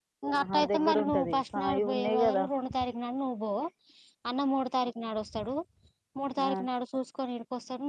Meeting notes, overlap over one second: present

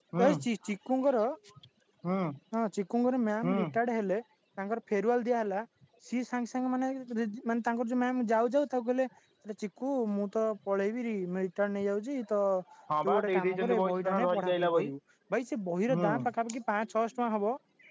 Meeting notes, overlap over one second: present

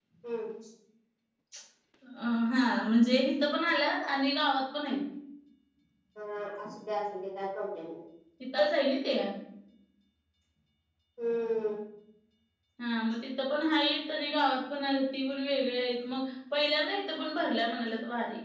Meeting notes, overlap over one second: none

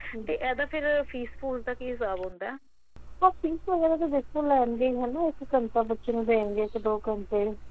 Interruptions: none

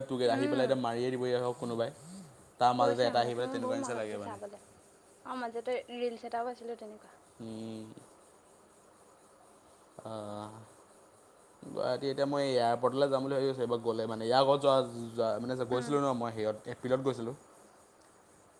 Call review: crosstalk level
present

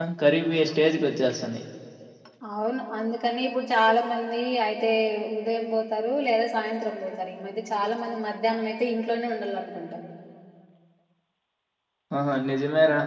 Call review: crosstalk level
none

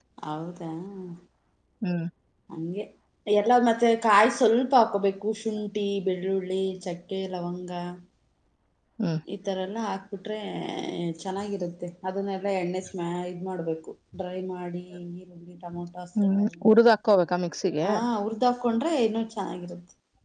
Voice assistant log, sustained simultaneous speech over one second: none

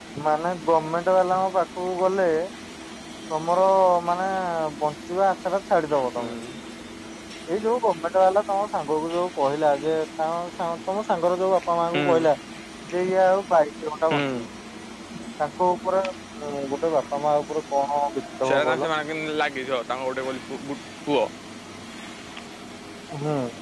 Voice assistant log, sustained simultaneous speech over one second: none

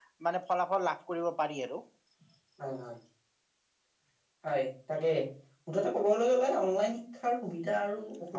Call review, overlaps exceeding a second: none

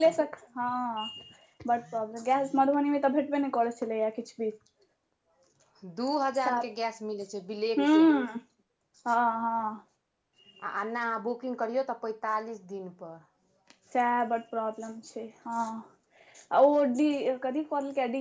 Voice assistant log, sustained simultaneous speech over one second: none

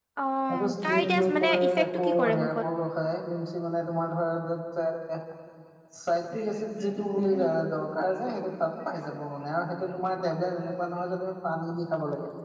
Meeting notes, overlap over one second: present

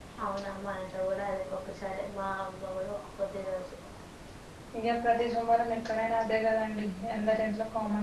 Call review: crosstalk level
none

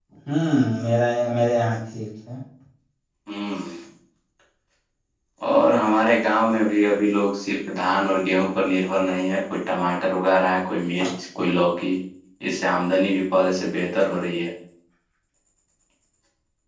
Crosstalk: none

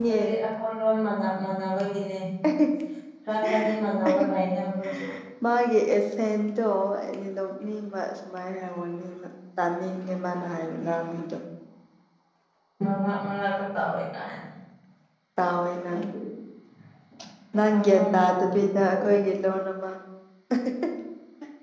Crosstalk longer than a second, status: present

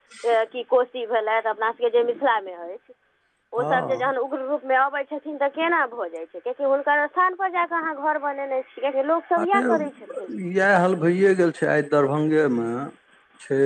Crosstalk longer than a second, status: none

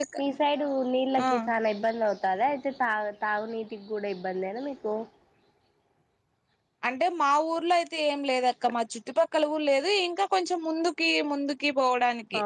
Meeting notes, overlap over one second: none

